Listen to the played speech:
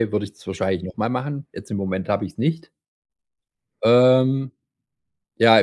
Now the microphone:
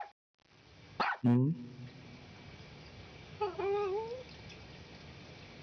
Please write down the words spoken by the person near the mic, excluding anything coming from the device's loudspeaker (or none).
mhm,